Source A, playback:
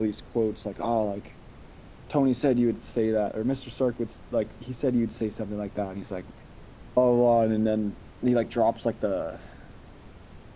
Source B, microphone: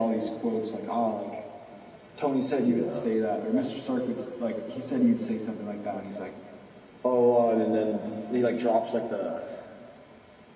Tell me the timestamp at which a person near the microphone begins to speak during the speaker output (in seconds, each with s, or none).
2.6 s